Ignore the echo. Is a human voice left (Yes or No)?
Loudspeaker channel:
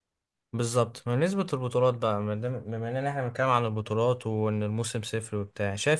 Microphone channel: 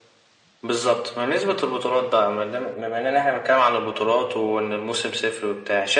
No